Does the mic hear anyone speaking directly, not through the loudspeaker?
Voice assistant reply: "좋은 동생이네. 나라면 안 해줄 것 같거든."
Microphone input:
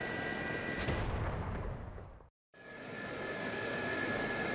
No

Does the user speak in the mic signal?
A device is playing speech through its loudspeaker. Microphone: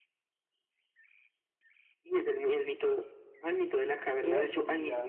Yes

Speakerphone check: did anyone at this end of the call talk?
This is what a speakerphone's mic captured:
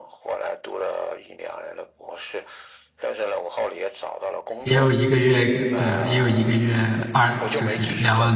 Yes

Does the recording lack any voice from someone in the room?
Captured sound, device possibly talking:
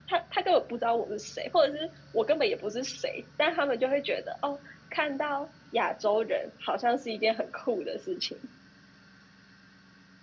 No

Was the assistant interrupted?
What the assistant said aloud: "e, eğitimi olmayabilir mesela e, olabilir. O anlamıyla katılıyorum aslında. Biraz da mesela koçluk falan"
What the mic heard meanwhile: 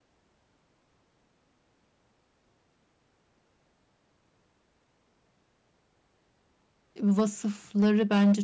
Yes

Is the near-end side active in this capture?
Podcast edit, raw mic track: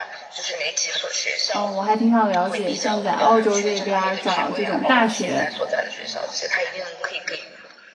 Yes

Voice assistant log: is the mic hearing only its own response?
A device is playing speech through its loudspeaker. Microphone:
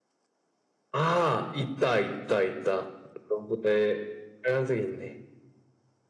Yes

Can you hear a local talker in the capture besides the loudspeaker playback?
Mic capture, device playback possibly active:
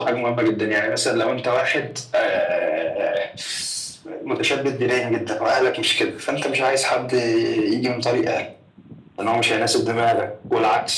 No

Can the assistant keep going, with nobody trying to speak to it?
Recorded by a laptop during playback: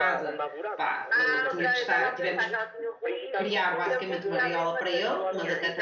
No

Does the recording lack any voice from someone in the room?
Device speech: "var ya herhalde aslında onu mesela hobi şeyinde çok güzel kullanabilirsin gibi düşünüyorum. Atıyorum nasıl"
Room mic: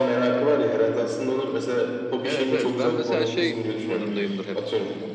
No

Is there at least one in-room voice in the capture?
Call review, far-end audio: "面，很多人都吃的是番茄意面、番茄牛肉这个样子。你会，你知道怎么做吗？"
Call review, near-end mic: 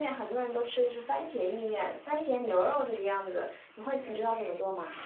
No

